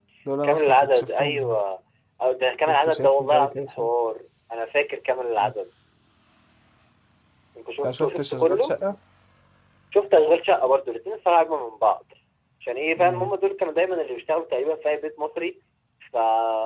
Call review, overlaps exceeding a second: present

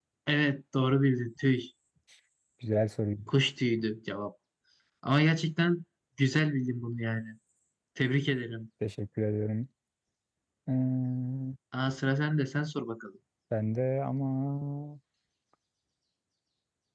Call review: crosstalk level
none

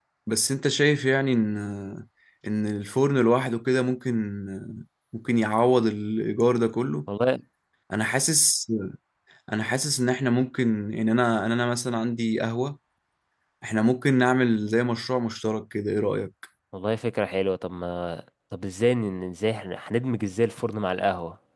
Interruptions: none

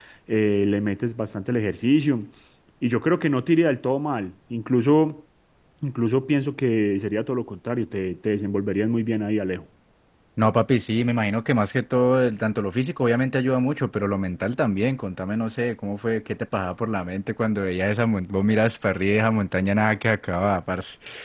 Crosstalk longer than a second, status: none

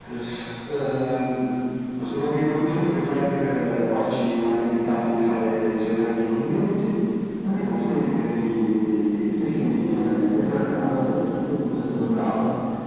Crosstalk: present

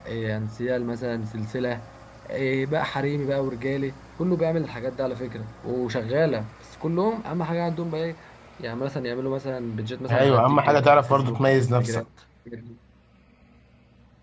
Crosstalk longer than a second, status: present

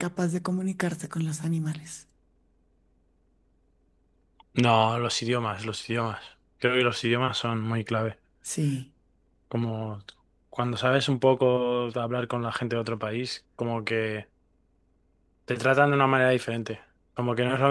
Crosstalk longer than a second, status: none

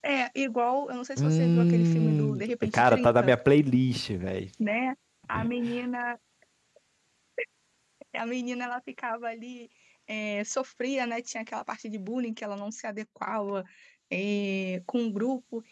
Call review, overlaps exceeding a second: present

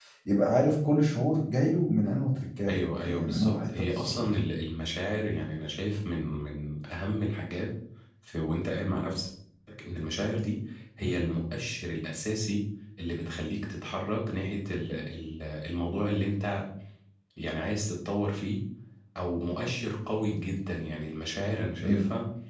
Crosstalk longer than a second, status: present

